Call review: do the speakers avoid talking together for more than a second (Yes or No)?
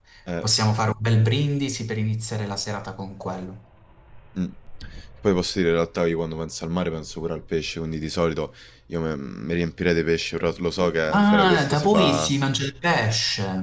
No